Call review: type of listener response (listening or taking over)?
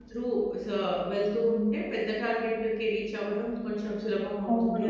taking over